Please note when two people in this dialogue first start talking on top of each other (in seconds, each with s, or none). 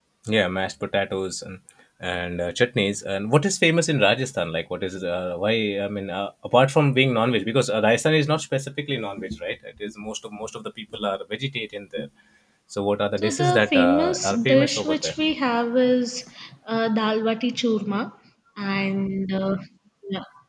13.2 s